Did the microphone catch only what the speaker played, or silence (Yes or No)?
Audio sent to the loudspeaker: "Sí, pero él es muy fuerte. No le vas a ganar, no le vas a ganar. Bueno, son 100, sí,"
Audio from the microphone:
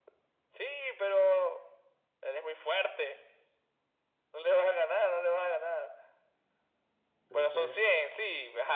No